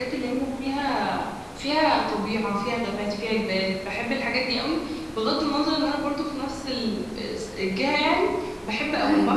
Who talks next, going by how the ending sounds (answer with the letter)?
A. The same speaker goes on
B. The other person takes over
A